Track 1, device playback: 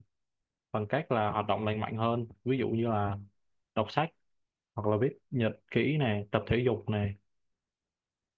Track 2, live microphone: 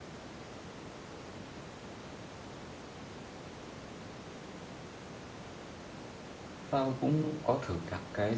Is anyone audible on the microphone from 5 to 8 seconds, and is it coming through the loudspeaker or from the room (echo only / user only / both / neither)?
user only